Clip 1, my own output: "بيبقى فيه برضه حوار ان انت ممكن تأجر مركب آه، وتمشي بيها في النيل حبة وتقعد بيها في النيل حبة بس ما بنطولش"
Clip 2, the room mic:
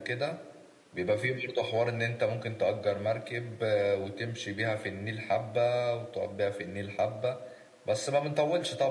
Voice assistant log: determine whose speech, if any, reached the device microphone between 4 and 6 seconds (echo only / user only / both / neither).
echo only